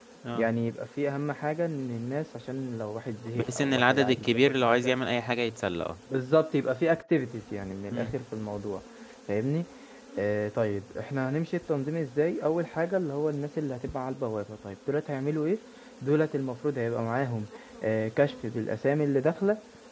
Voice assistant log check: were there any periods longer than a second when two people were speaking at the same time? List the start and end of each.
3.4-5.0

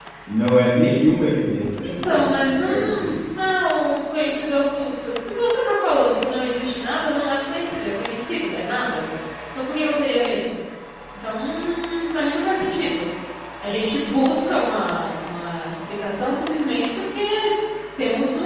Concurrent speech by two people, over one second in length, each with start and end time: 1.8-3.1

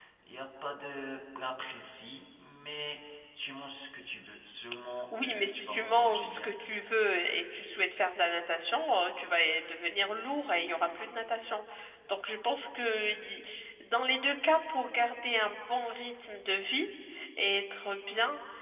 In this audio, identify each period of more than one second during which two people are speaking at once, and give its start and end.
5.1-6.5

